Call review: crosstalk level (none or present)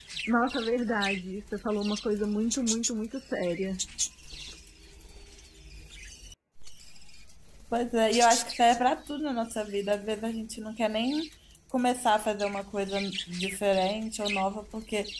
none